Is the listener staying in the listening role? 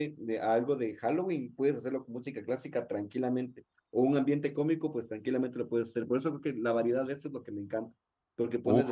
Yes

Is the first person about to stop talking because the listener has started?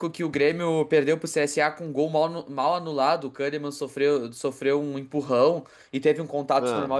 No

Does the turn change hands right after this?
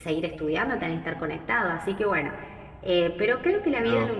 No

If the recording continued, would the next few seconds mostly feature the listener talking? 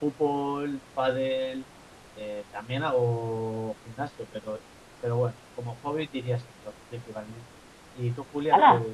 Yes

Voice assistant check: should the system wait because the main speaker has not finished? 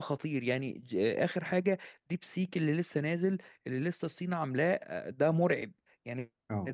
Yes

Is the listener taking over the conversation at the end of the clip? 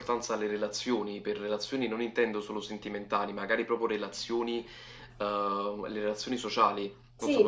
Yes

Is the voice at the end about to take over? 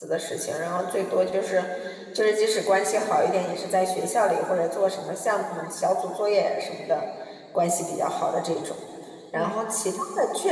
No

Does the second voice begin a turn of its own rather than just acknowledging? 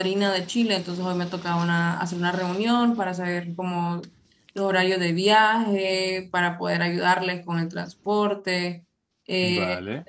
No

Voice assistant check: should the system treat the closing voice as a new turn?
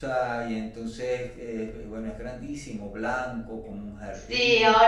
Yes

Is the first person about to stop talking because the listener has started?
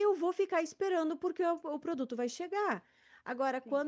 No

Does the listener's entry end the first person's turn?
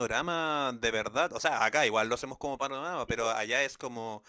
No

